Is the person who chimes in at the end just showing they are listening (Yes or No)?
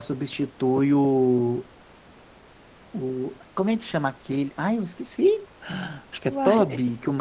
Yes